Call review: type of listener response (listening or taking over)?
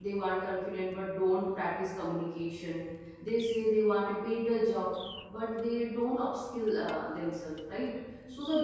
listening